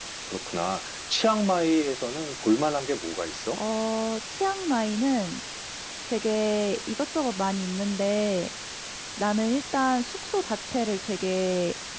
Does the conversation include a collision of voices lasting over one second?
No

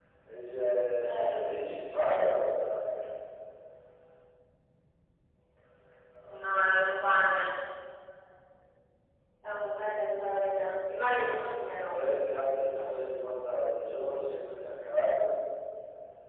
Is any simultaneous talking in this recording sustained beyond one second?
No

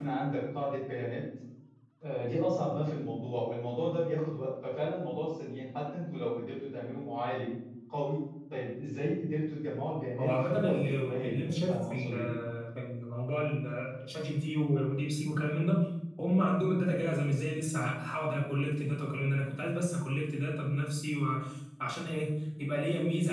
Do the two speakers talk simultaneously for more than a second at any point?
Yes, from 10.2 s

